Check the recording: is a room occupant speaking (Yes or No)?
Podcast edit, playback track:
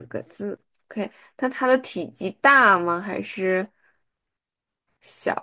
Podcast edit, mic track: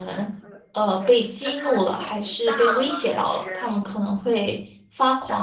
Yes